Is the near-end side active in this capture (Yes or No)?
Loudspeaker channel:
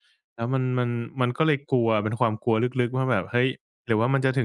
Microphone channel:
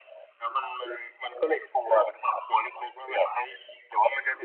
No